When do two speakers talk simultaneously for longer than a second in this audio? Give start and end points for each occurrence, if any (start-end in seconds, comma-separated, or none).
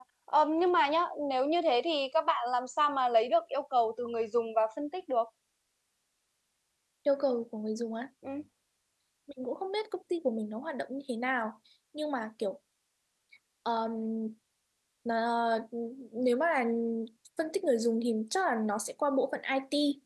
none